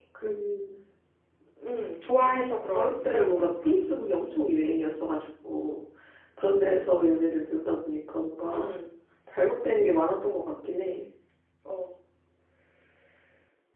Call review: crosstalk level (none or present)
present